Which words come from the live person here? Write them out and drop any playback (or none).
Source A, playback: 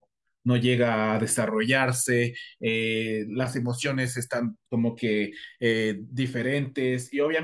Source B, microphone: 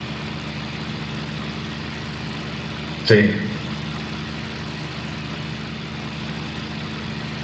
Sí.